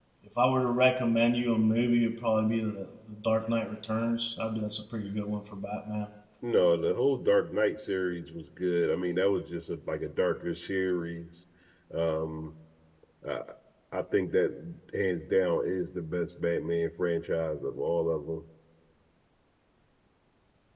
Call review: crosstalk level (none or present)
none